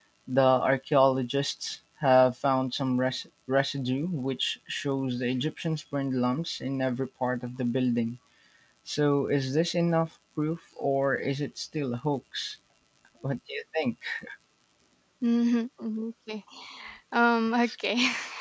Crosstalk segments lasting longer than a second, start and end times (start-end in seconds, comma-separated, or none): none